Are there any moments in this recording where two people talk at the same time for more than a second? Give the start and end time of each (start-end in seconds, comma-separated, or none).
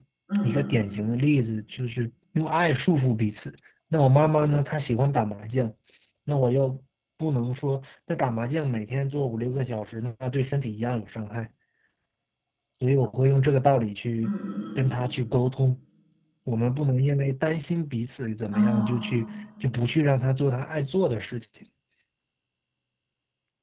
none